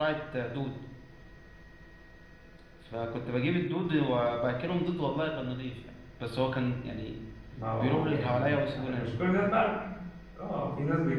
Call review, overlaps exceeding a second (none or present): present